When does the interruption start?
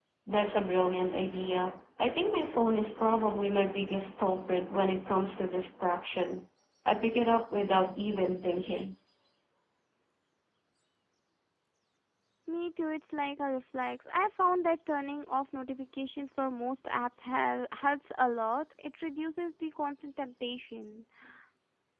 none

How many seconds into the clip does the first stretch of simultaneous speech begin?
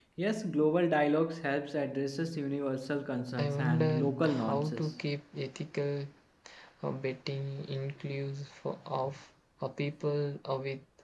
3.4 s

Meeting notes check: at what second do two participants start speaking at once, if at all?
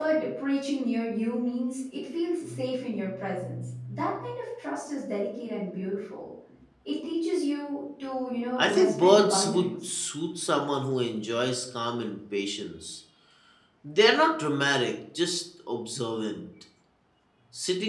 8.6 s

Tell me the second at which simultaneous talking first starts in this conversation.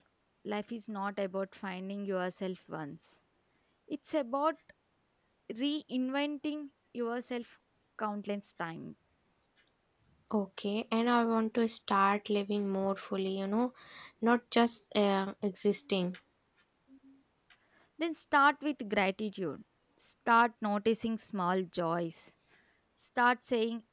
none

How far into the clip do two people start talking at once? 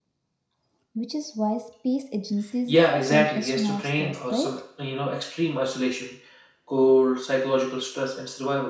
2.7 s

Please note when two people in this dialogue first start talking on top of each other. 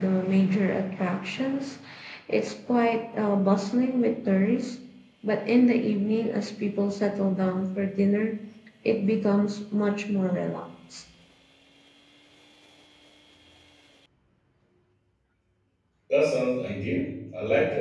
none

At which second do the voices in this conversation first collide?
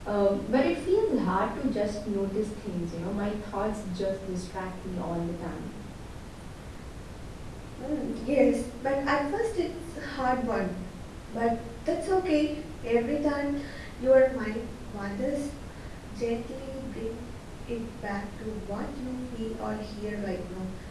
none

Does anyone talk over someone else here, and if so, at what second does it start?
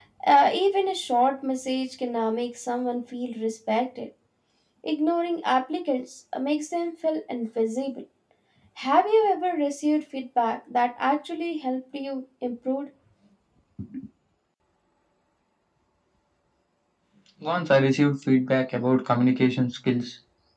none

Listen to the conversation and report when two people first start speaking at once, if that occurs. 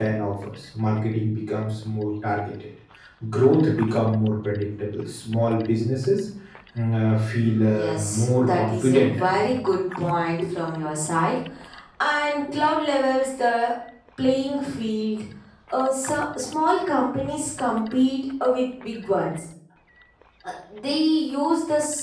7.7 s

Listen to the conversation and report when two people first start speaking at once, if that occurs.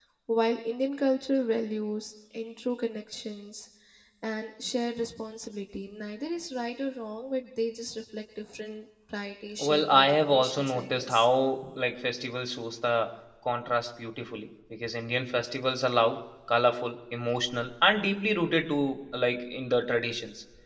9.6 s

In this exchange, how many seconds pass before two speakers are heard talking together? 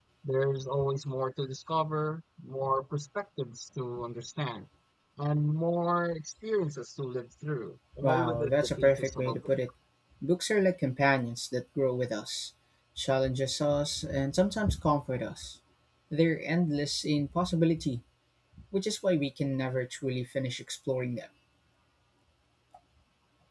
7.9 s

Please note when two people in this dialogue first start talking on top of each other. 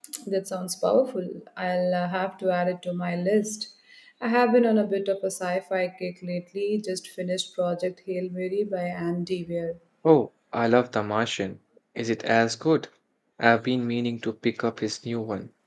none

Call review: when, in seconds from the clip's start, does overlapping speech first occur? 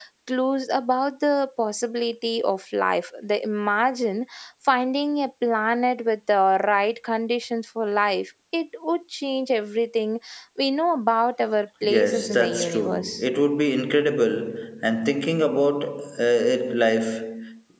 11.8 s

